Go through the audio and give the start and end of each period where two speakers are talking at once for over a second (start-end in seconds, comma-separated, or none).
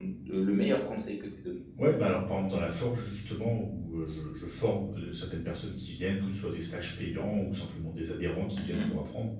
none